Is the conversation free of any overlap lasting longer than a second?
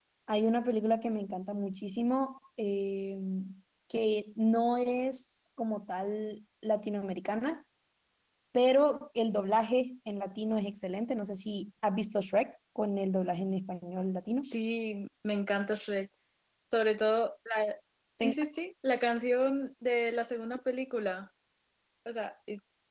Yes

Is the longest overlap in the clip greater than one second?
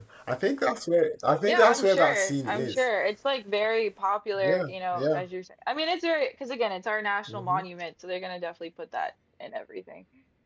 Yes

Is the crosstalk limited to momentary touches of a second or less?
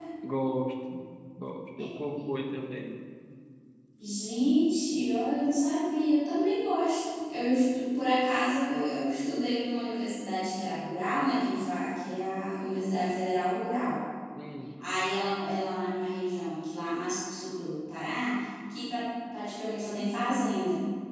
Yes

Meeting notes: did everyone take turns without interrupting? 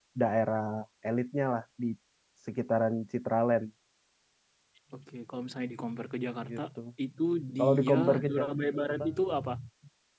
No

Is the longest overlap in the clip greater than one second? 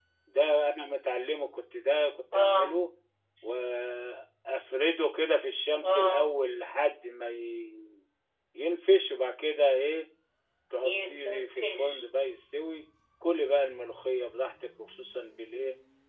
Yes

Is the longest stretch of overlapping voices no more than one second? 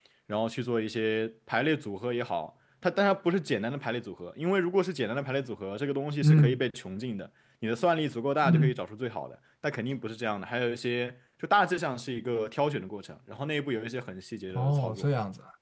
Yes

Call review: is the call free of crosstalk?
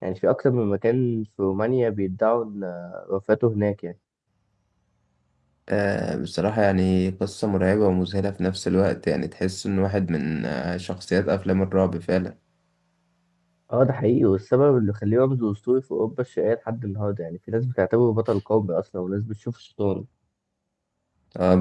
Yes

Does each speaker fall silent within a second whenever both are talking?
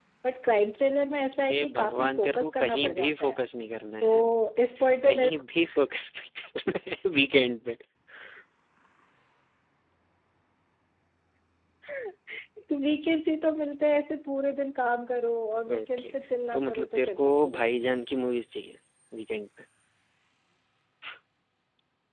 No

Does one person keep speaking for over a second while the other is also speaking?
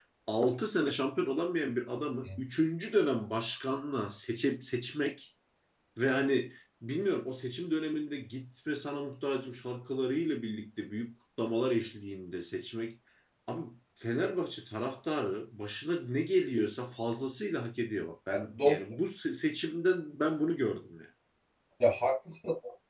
No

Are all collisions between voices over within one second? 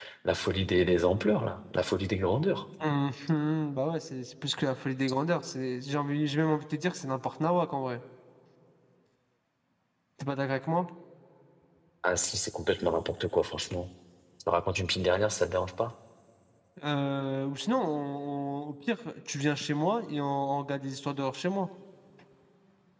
Yes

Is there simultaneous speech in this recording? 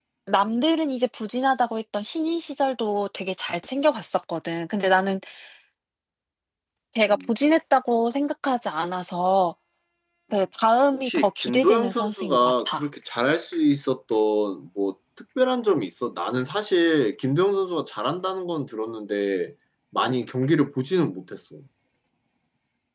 Yes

